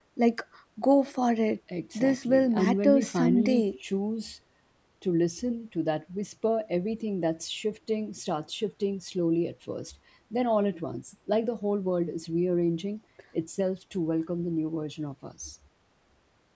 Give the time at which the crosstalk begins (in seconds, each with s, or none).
2.0 s